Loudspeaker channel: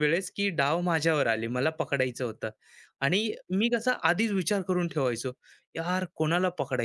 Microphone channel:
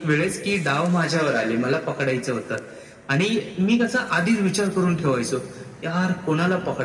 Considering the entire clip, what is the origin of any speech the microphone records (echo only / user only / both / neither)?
echo only